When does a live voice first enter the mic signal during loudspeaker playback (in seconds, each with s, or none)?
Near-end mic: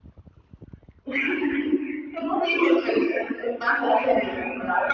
none